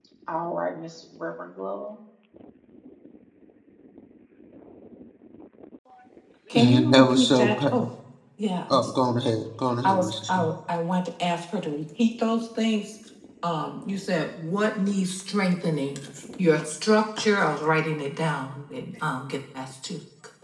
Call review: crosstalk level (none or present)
present